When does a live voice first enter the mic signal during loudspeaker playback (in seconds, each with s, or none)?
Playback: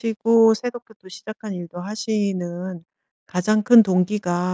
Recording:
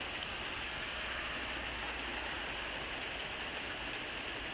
none